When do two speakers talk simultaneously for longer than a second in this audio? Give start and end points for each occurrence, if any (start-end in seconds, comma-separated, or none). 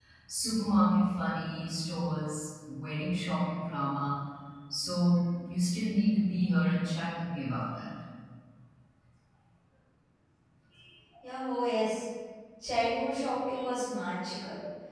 none